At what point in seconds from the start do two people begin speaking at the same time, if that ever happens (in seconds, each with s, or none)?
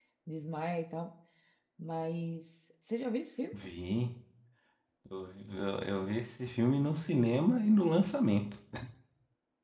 none